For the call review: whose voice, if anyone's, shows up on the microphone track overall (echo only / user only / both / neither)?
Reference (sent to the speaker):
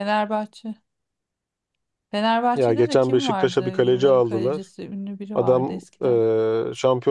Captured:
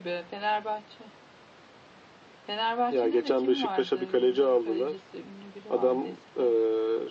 echo only